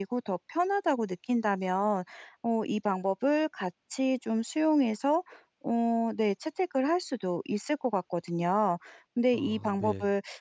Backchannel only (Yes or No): Yes